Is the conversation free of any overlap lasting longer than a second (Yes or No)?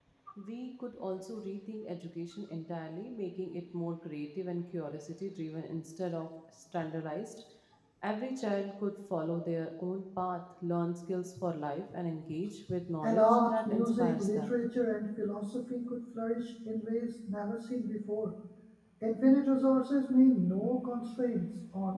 No